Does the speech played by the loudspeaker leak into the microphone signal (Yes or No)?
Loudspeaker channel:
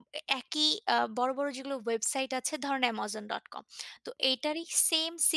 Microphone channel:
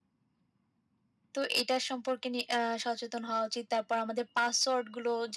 No